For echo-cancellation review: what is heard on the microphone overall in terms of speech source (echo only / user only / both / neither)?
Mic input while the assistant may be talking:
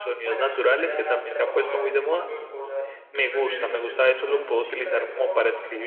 both